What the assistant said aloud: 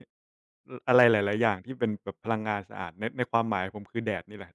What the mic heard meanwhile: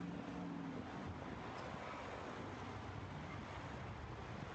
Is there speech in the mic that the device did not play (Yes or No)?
No